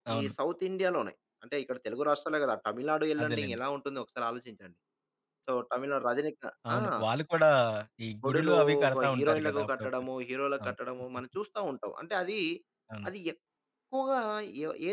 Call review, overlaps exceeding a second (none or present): present